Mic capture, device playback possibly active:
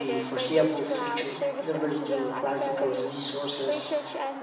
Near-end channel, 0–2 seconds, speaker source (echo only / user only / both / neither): both